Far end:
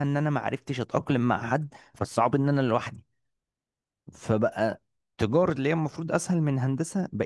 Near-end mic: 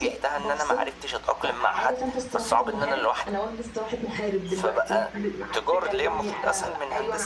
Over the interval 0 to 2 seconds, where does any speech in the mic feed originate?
both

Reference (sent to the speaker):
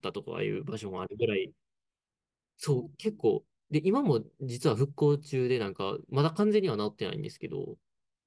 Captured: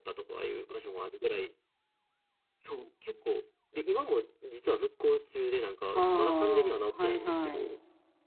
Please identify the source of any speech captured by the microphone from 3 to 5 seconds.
echo only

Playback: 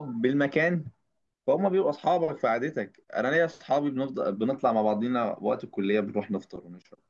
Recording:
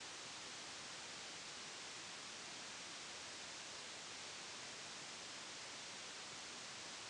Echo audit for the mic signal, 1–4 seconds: neither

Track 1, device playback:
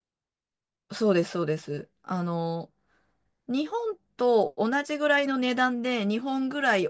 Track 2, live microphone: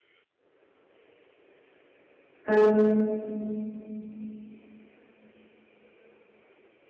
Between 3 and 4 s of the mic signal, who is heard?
user only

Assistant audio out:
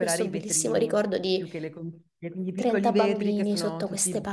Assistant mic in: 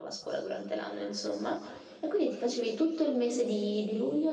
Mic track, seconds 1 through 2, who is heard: user only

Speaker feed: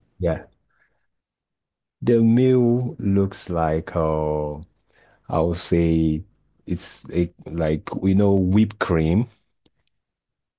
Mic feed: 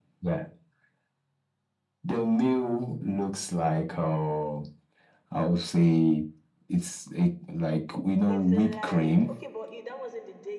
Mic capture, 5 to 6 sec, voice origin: echo only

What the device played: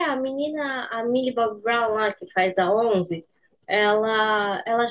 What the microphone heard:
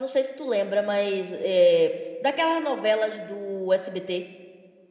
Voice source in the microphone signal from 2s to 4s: user only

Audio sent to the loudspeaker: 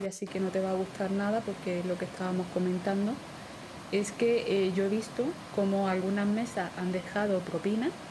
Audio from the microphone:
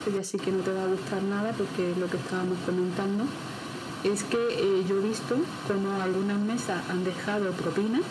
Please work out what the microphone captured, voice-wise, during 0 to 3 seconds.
echo only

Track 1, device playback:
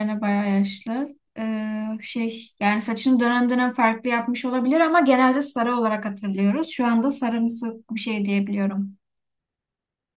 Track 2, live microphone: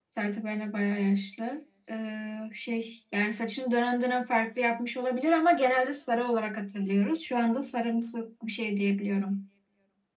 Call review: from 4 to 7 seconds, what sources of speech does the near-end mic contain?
echo only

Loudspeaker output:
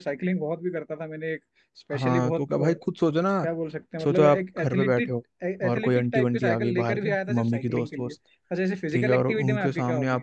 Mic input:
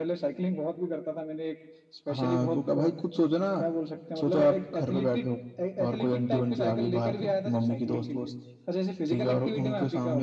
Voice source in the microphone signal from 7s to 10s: echo only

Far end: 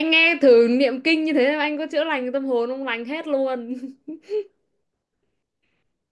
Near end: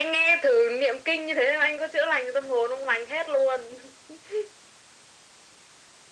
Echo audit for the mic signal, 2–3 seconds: echo only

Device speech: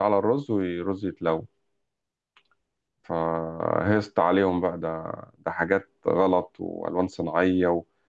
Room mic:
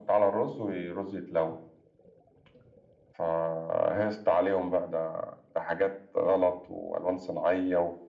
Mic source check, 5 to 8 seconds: echo only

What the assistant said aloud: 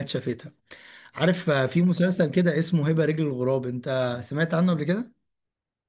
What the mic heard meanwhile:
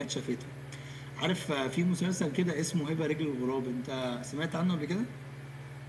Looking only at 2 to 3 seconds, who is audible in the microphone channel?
echo only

